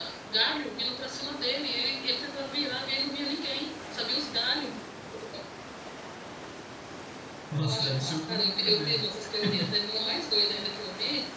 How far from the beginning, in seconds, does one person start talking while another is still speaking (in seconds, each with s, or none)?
7.6 s